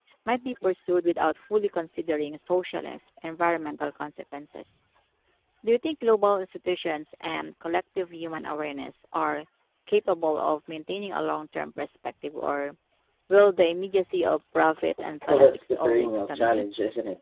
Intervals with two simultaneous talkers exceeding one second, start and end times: 15.3-16.6

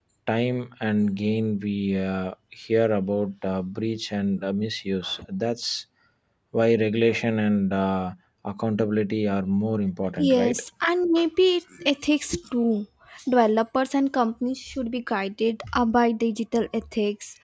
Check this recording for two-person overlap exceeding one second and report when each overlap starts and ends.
none

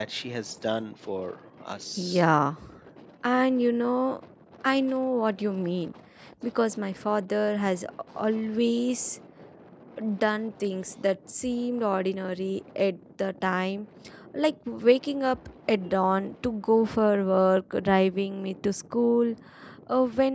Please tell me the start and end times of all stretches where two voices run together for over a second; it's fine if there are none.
none

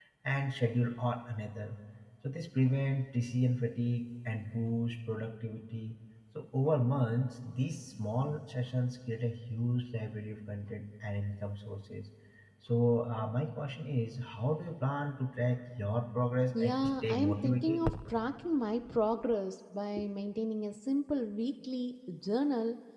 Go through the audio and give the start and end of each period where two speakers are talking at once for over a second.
16.5-17.8

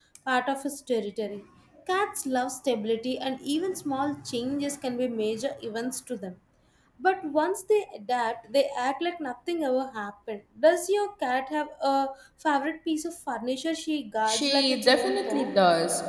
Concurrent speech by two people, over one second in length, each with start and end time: 14.3-15.6

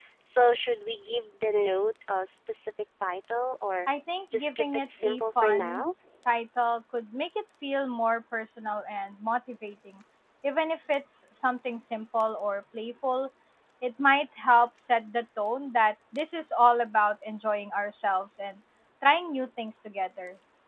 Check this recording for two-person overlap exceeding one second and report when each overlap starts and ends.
4.3-5.8

